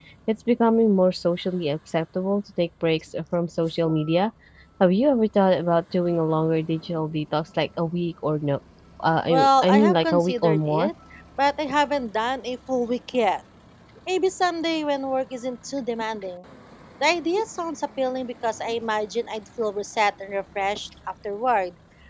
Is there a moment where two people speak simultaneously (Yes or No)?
Yes